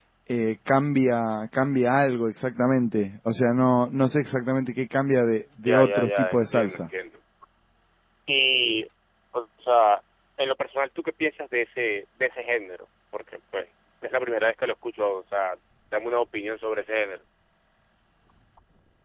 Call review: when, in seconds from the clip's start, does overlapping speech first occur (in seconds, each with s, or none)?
5.7 s